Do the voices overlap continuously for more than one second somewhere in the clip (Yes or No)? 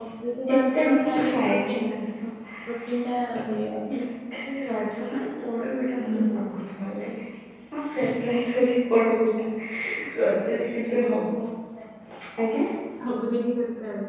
Yes